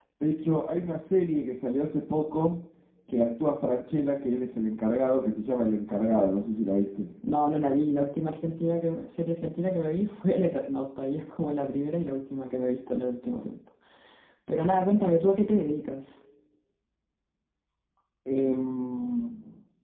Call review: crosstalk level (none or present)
none